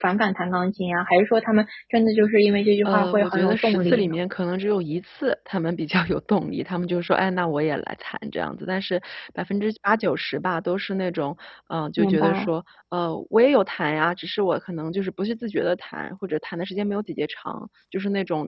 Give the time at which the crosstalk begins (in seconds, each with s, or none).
2.9 s